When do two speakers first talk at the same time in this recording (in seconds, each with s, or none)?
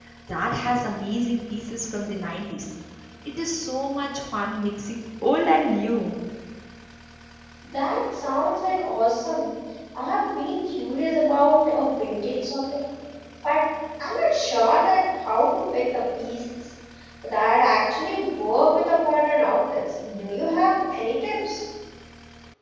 none